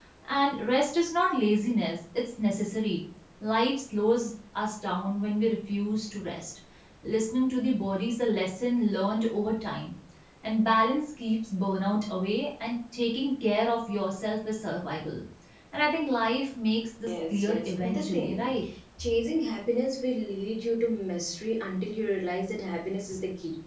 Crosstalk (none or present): present